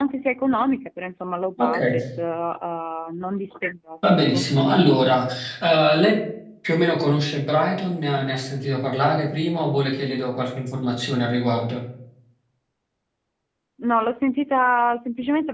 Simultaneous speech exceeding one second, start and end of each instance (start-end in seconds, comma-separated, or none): none